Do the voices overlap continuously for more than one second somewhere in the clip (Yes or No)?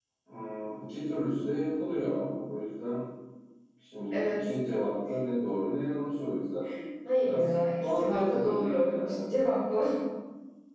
Yes